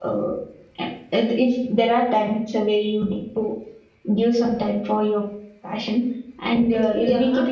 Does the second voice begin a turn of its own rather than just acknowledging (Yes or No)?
No